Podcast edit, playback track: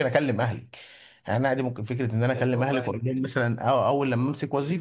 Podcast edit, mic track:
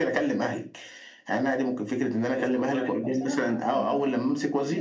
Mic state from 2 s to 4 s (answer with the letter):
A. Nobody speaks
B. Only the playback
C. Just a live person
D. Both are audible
D